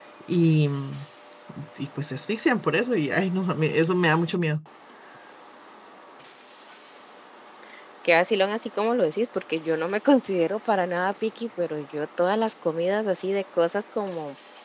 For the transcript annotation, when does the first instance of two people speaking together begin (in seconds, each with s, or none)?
none